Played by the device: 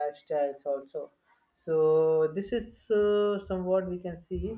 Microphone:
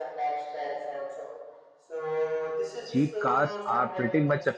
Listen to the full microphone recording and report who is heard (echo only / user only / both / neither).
both